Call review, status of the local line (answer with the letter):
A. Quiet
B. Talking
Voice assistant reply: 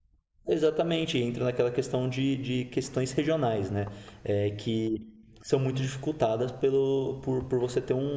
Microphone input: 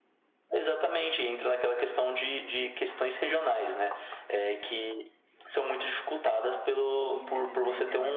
B